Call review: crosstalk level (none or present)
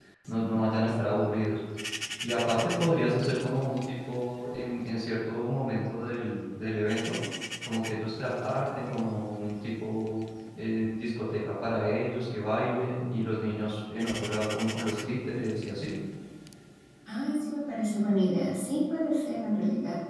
none